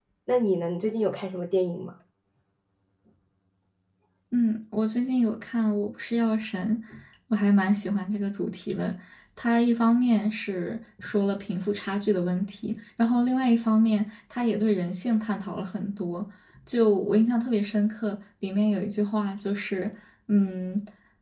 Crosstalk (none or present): none